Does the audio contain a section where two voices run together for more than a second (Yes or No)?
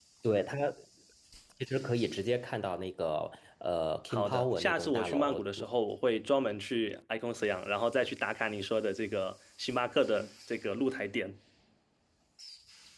Yes